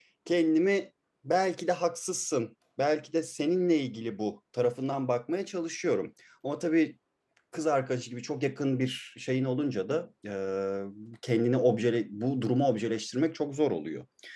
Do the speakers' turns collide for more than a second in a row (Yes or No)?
No